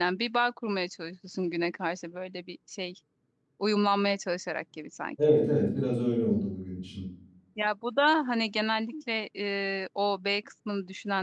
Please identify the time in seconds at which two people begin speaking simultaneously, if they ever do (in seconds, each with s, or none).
none